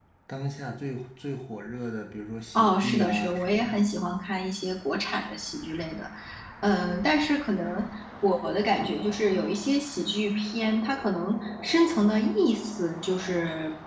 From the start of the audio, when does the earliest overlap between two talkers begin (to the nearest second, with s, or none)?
3 s